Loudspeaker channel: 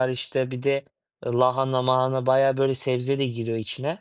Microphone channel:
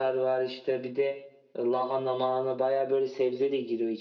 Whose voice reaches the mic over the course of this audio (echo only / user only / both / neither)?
echo only